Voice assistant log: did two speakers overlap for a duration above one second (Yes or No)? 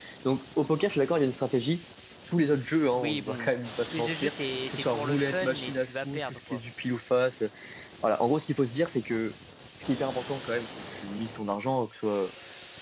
Yes